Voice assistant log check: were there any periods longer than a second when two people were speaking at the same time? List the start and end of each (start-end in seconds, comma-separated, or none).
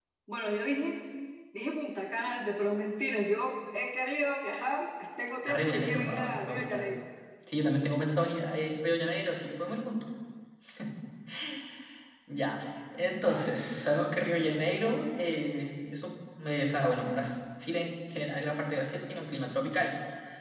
5.5-6.8